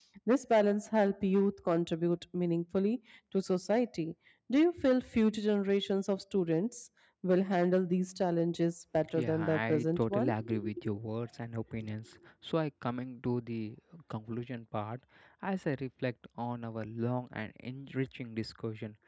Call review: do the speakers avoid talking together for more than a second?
No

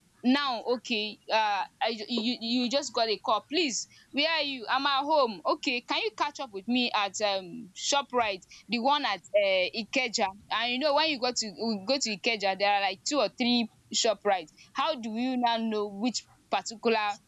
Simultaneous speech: No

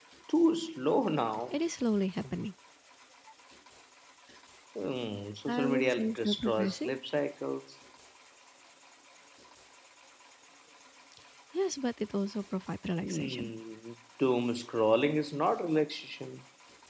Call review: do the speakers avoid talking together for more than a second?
No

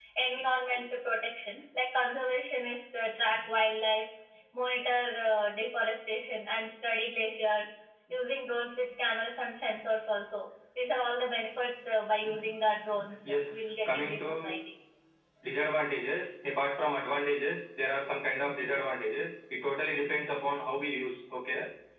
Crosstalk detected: Yes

